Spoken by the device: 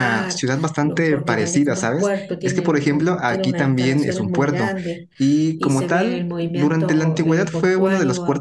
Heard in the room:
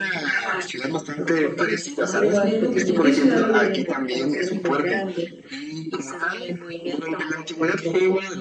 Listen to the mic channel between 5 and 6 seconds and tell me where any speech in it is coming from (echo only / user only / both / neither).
echo only